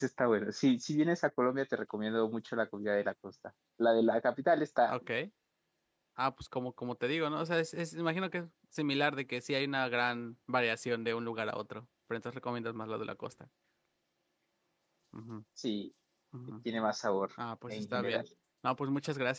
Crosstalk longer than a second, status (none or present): none